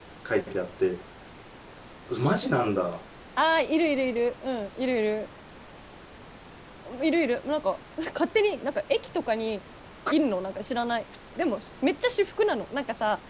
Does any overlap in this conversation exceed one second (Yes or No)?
No